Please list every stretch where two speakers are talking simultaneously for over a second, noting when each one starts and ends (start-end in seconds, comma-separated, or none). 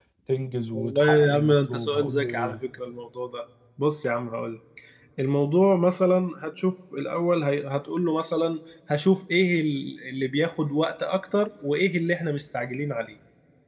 0.7-2.6